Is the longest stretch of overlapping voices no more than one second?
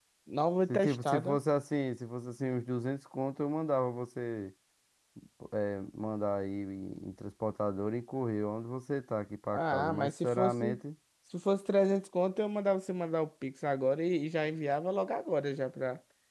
No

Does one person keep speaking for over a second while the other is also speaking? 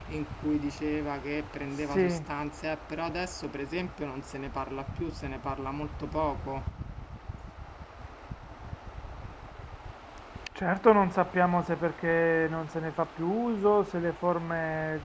No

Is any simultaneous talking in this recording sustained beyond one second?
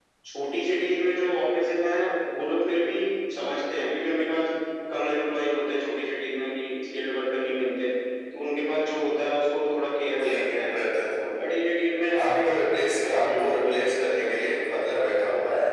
Yes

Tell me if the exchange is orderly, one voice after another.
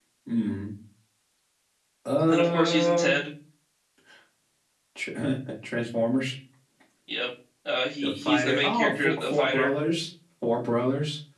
No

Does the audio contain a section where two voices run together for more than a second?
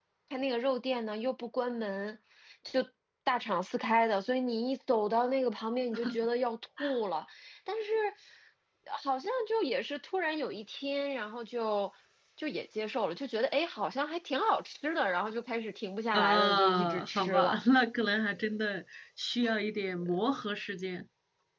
Yes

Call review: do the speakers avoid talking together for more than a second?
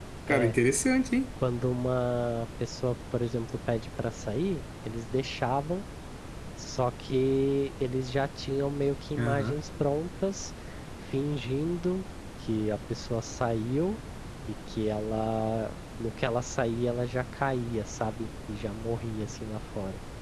Yes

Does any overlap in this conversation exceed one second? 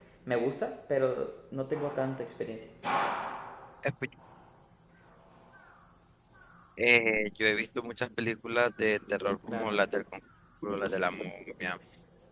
No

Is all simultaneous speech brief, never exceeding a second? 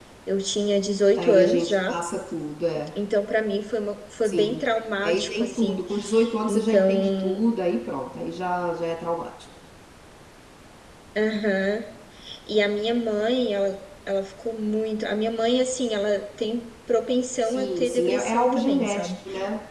No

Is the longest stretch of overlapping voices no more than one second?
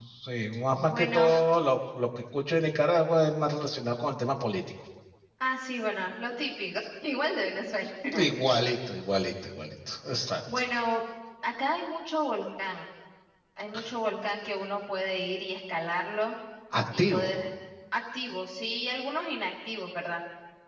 Yes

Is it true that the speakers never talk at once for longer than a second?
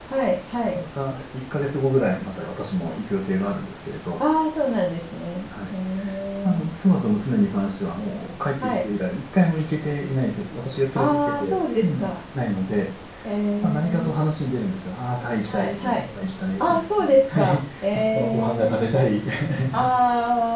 No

